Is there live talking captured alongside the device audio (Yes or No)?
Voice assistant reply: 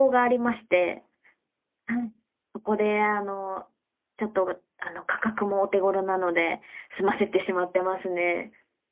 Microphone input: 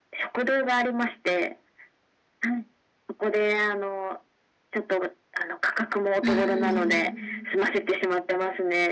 Yes